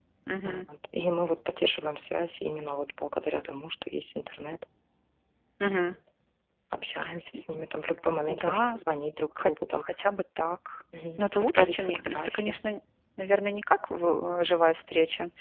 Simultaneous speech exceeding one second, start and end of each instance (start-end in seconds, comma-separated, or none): 11.2-12.6